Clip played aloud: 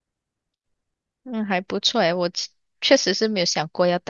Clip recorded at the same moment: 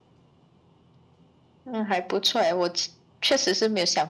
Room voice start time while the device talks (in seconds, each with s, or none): none